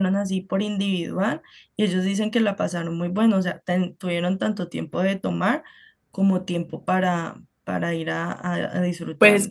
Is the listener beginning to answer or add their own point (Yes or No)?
Yes